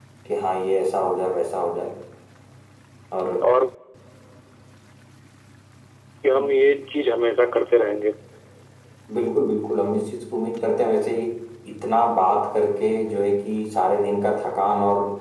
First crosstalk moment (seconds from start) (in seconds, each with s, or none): none